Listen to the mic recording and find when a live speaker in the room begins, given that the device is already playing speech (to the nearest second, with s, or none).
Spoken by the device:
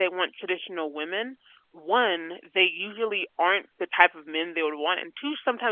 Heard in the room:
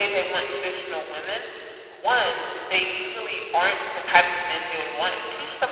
none